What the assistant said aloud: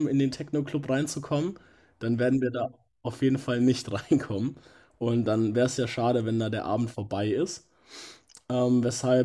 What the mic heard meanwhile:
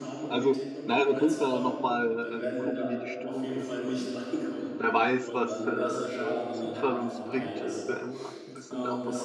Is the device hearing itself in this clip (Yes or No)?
Yes